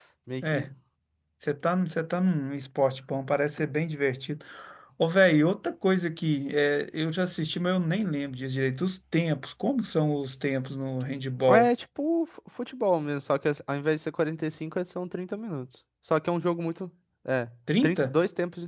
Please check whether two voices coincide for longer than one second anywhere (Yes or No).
No